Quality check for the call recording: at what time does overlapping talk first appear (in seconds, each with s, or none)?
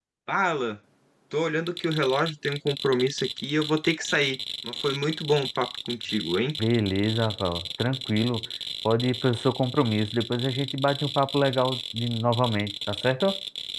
none